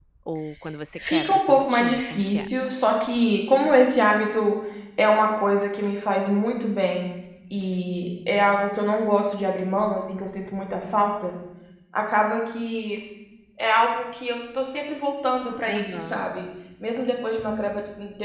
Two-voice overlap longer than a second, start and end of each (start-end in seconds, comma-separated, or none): 1.0-2.5